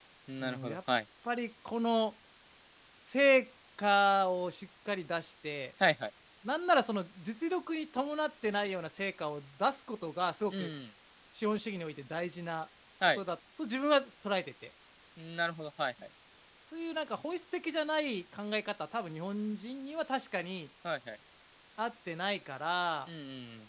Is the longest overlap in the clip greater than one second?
No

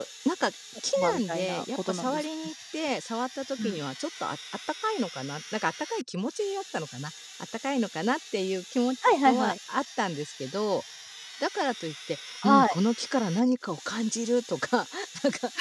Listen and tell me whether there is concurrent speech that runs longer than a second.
Yes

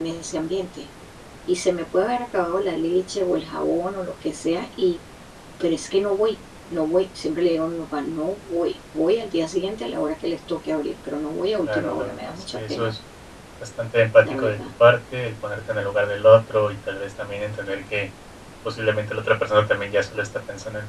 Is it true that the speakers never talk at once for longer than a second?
No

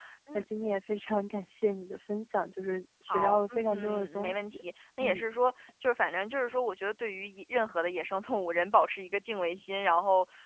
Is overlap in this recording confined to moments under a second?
No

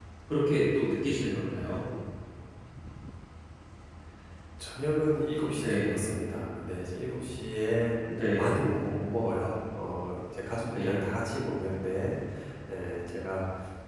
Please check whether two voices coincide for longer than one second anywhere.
No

